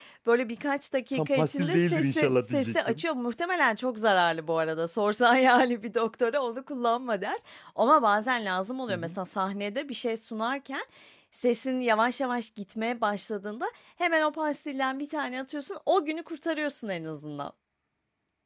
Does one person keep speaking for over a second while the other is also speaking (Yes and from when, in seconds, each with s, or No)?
Yes, from 1.1 s